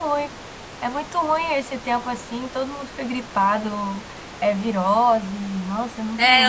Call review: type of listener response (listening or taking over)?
taking over